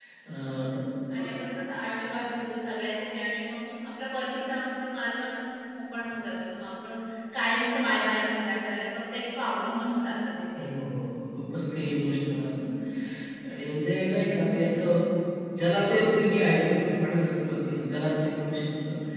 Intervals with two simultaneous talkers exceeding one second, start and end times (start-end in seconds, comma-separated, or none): none